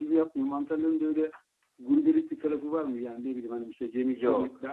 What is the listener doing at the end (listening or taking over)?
listening